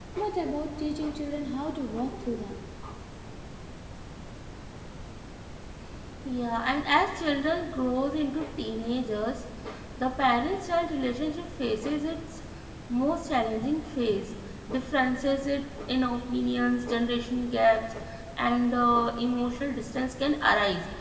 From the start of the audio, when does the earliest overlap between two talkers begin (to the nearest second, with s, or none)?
none